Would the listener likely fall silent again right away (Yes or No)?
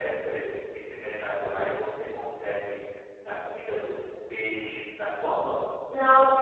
No